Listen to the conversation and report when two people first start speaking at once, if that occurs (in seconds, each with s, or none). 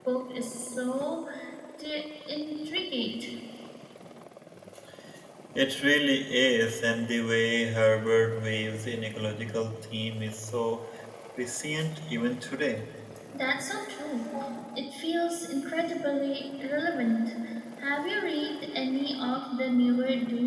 none